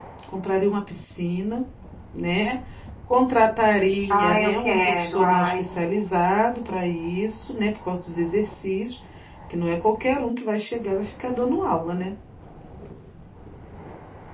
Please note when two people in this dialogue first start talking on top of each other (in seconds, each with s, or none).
4.1 s